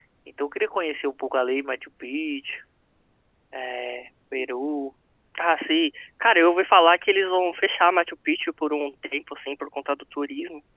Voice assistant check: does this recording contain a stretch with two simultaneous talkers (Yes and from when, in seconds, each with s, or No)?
No